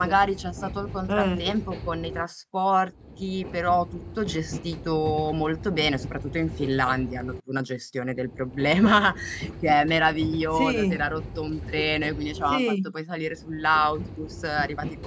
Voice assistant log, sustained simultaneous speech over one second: none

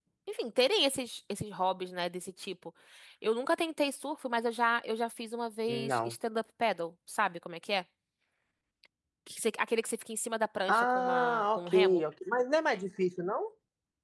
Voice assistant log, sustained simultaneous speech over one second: present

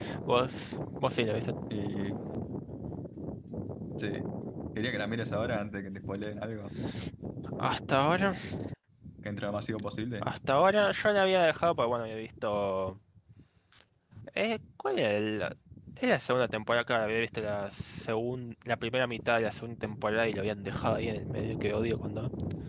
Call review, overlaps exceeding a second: none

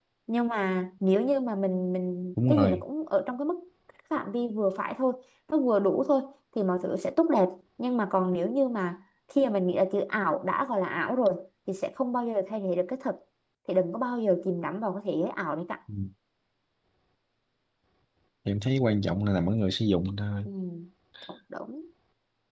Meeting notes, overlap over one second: none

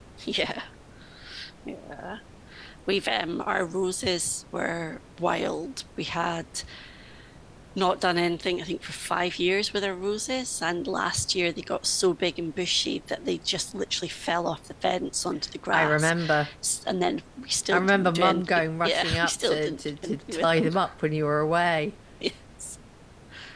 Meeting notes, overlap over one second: present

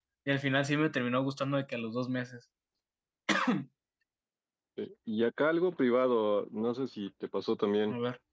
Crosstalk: none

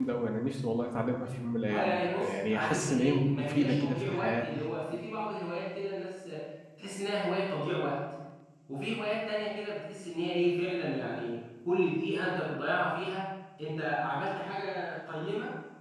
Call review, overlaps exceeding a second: present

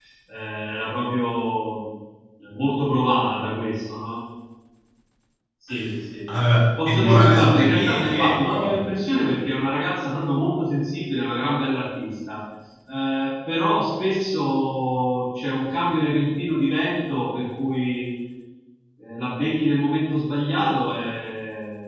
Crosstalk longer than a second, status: present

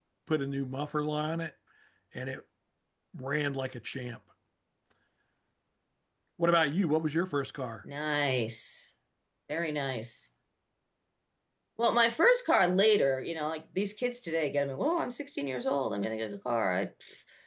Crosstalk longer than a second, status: none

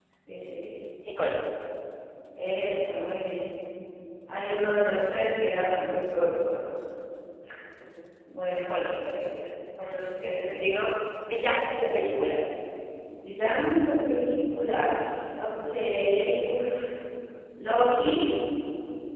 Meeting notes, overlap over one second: none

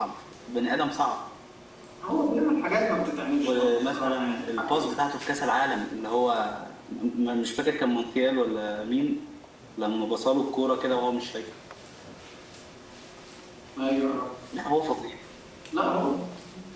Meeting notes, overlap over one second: present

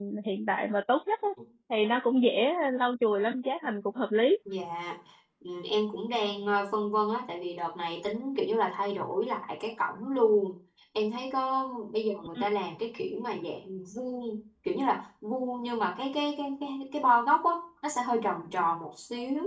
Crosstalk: none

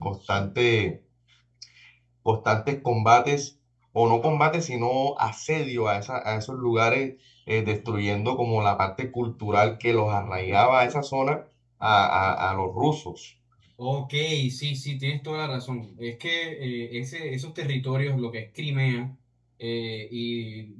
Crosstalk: none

